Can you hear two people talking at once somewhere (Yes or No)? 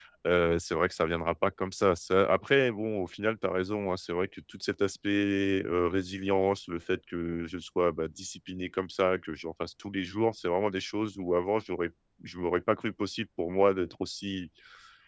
No